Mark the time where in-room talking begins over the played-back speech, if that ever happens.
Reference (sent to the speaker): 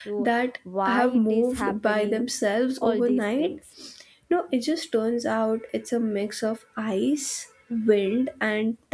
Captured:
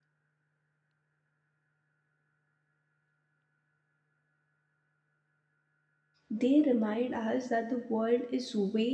6.3 s

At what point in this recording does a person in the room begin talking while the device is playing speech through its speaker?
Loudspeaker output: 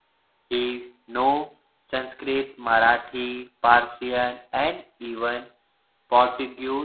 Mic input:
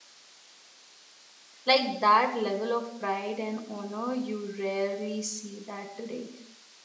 1.7 s

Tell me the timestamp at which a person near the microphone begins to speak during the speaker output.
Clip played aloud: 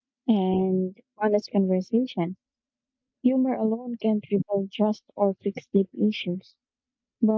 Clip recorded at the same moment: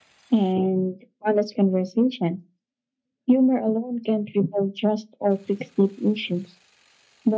none

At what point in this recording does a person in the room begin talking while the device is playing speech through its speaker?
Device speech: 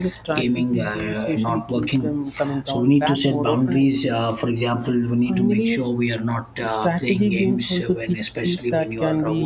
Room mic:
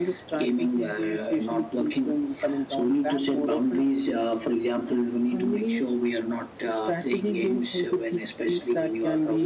none

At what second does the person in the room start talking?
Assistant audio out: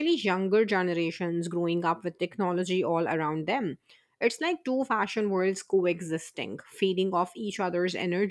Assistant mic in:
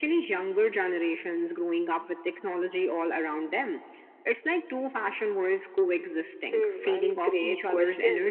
6.5 s

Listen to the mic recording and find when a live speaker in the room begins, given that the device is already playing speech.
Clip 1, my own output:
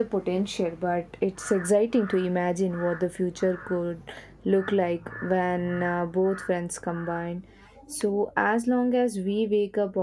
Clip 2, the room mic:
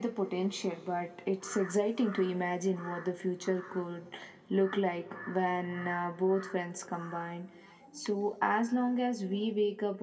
none

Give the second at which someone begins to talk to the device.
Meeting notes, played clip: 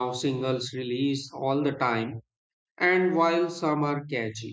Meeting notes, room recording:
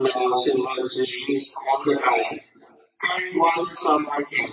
none

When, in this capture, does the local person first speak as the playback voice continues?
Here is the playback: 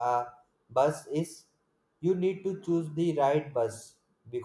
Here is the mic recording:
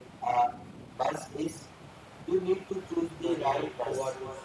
3.3 s

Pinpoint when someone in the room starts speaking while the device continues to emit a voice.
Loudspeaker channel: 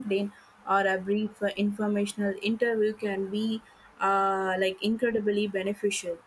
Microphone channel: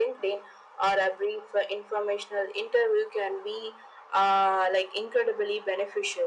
none

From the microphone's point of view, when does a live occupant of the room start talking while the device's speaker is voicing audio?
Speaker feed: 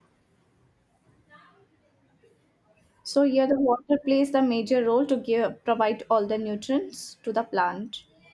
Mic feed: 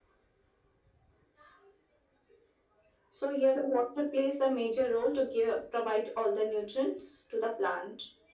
none

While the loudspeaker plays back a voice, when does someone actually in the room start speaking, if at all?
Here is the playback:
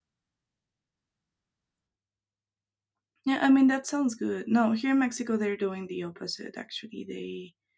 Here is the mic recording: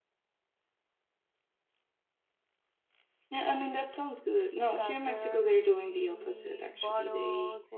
4.7 s

